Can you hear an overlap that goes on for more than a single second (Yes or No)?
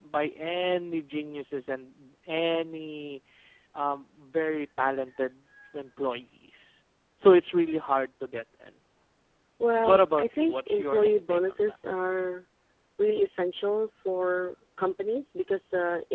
Yes